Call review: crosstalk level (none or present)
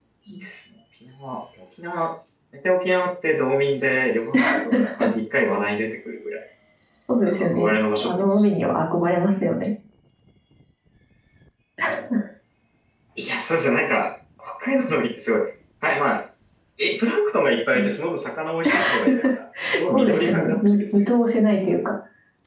present